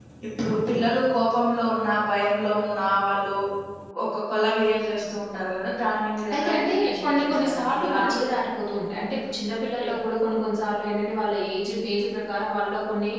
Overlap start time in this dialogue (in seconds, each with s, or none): 6.3 s